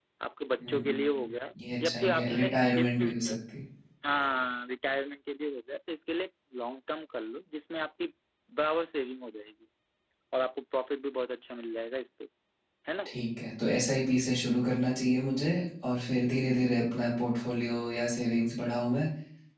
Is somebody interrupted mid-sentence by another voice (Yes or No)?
Yes